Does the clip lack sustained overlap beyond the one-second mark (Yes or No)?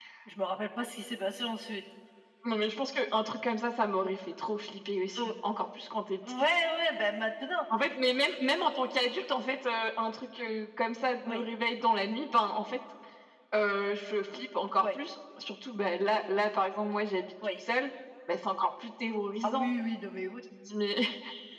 Yes